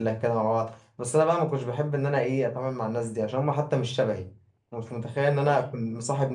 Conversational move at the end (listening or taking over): listening